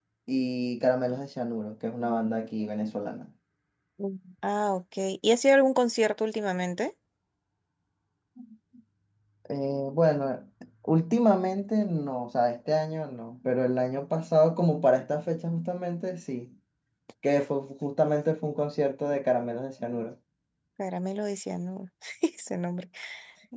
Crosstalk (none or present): none